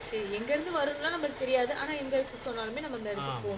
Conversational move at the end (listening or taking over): taking over